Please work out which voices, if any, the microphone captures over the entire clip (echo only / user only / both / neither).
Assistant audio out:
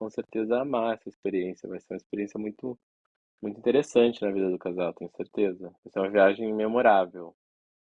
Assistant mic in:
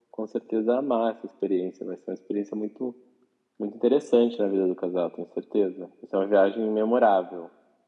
echo only